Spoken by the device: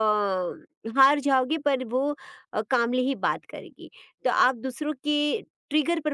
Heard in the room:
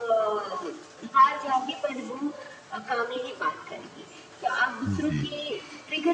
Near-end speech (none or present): present